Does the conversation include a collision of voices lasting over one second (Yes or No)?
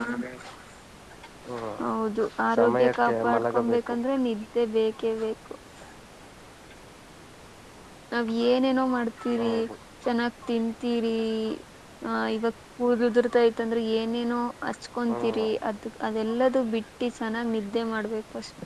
Yes